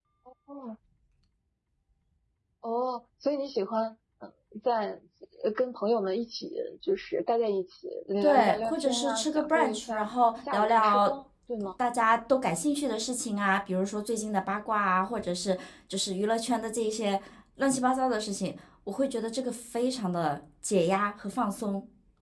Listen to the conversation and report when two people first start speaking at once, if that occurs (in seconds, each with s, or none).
8.2 s